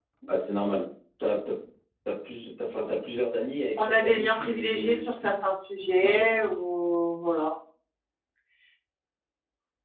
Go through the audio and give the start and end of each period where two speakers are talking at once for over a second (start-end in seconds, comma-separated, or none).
3.8-5.0